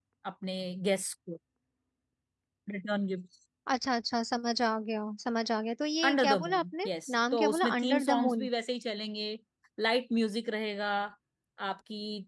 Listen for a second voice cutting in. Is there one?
Yes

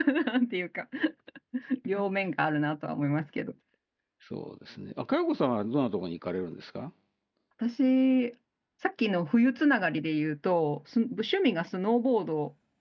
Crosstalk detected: No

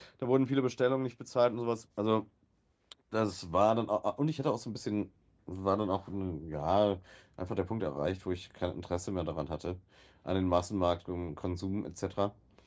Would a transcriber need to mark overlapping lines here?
No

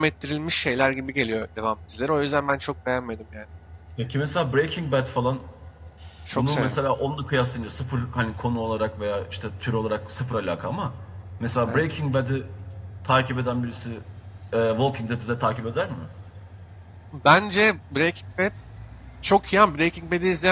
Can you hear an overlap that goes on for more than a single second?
No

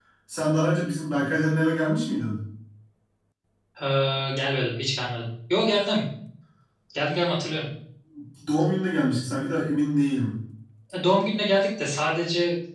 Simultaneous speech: No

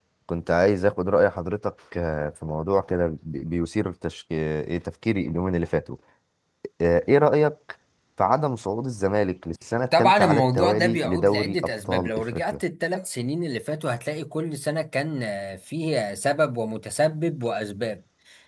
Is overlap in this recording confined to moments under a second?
No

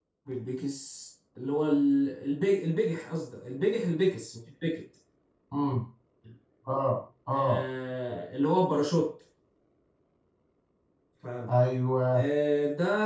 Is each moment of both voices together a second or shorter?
Yes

